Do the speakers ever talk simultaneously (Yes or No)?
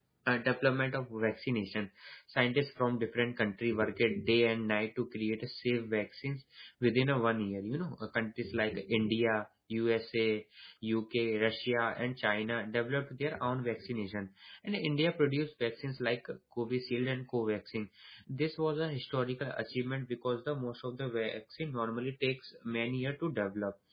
No